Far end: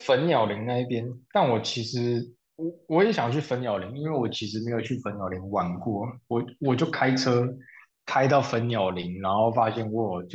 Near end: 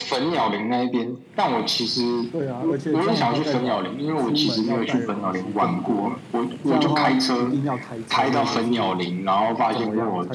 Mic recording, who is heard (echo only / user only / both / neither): both